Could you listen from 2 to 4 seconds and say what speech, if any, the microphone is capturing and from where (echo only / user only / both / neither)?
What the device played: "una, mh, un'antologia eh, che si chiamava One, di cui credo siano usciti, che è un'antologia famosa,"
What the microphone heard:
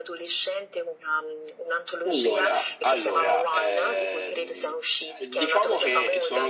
both